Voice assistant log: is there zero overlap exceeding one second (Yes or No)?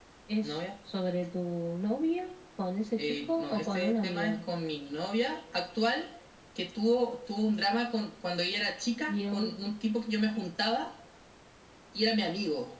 No